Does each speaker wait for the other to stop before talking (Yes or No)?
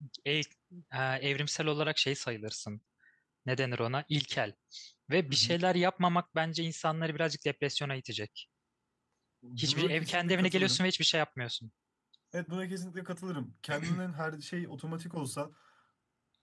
No